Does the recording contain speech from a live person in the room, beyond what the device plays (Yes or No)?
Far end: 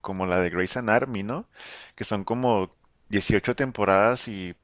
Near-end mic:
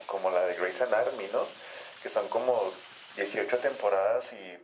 No